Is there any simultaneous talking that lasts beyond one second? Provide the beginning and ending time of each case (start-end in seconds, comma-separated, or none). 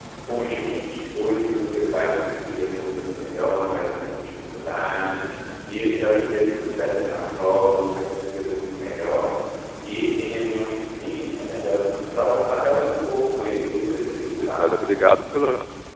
13.4-14.7